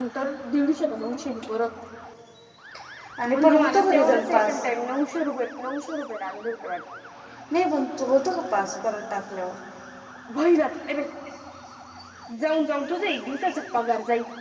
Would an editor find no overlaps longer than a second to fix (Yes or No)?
No